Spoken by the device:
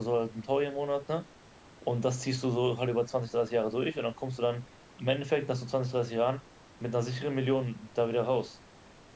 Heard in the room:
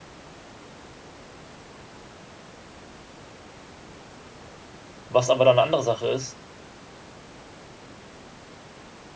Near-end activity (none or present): present